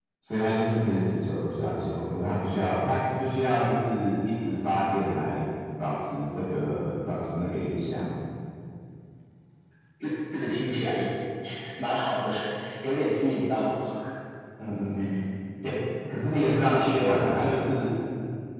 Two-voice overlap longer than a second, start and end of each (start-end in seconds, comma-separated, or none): 16.3-17.6